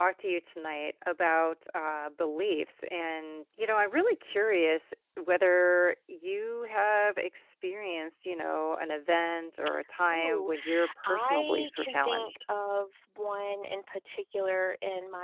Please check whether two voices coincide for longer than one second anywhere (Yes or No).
Yes